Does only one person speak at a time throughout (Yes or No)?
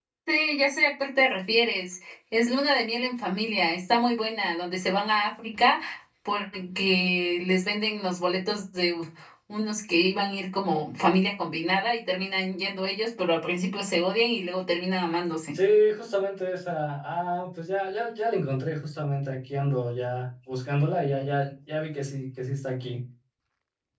Yes